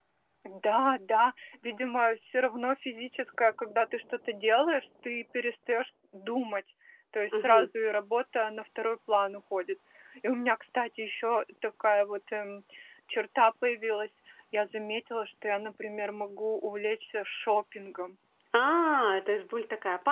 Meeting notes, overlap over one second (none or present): none